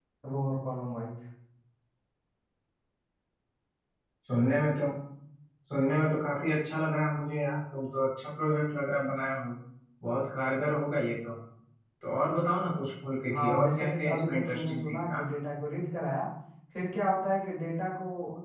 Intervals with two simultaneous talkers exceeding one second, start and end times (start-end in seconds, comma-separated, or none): 13.3-15.0